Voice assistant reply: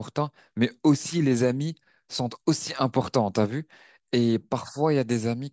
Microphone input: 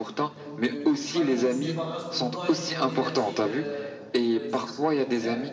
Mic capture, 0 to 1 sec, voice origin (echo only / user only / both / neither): both